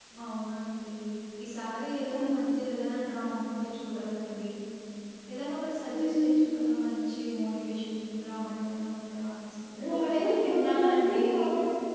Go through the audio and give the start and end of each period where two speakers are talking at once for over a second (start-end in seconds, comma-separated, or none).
9.9-11.2